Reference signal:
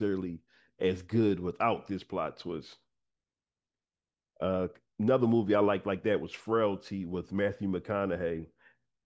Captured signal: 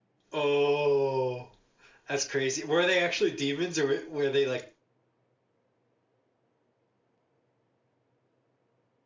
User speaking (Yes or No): Yes